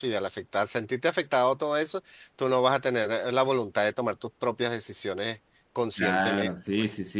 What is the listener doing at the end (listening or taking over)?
taking over